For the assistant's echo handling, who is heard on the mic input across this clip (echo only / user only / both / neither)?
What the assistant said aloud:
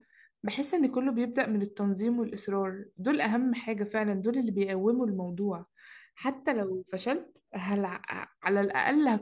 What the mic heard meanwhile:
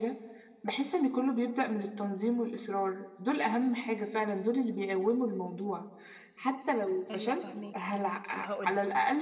both